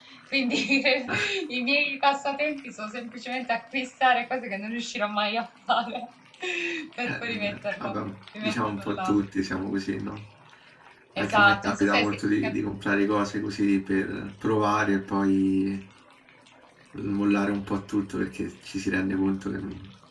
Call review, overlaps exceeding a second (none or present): present